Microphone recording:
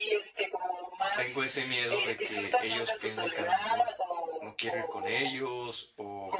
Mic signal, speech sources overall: both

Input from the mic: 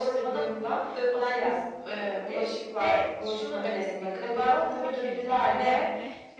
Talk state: both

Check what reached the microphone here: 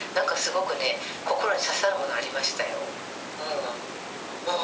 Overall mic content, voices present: echo only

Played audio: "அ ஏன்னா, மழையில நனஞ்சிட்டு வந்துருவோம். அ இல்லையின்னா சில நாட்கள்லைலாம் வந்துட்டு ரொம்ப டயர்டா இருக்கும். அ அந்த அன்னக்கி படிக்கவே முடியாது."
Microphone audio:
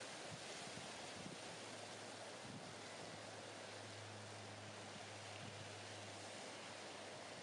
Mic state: neither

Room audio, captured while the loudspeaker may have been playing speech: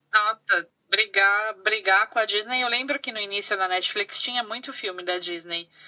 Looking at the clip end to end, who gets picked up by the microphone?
echo only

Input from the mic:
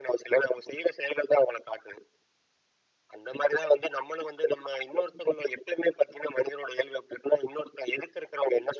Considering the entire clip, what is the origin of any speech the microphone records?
echo only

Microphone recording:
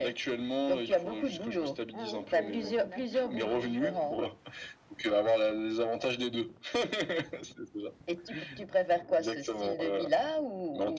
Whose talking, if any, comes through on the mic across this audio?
both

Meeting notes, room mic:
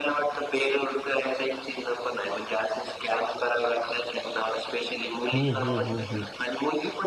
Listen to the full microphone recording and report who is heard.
both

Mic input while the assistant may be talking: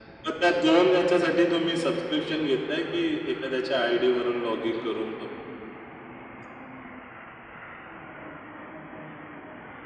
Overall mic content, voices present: echo only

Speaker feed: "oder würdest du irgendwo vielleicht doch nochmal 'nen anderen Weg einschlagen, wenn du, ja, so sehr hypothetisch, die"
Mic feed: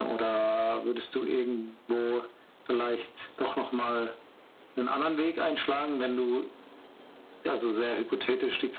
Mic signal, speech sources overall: echo only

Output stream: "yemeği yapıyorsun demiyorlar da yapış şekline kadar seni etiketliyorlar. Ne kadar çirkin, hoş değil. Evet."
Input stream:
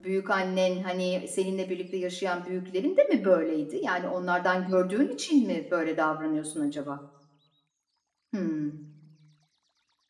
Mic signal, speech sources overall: user only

